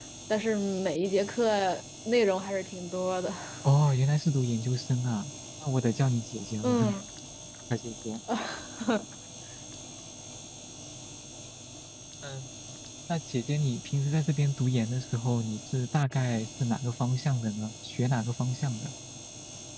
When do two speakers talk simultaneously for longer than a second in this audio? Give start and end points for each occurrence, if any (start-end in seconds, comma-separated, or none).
none